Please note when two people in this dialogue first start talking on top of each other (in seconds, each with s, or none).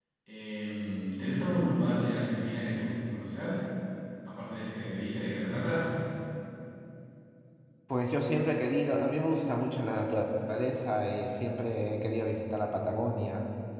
none